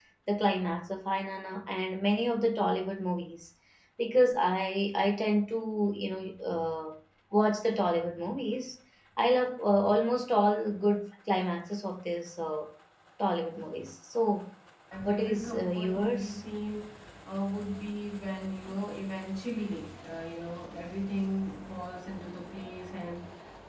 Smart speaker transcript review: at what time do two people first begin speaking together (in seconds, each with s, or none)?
15.0 s